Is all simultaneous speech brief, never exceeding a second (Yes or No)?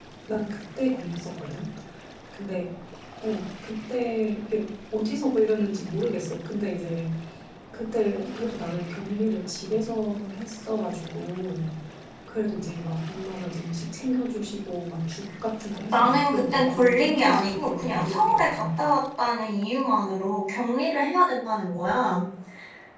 No